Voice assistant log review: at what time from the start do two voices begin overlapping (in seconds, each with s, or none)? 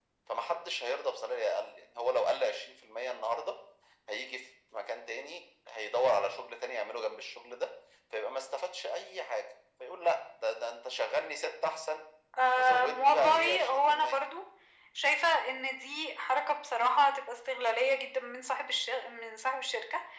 12.5 s